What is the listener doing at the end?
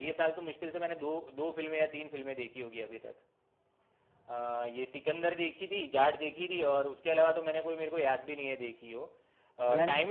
listening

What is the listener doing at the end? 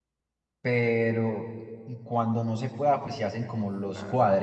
listening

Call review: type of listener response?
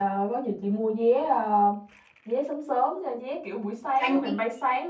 listening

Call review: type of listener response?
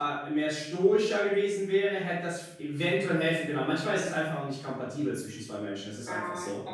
taking over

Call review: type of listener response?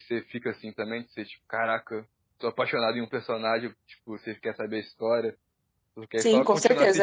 taking over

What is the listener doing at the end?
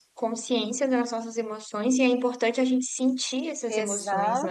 taking over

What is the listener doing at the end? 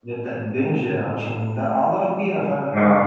listening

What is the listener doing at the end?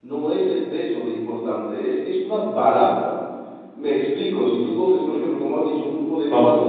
listening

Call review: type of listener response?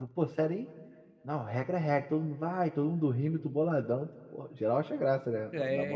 taking over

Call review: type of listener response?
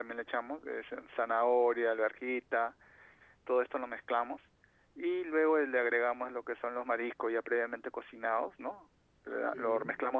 listening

